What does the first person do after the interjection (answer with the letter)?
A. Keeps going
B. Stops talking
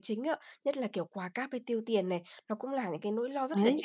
A